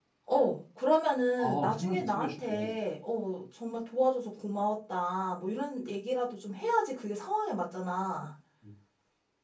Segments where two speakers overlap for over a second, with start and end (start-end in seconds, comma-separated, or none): 1.4-2.8